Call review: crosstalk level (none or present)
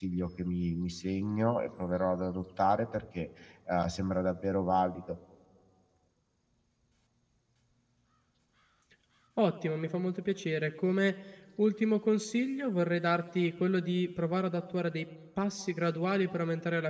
none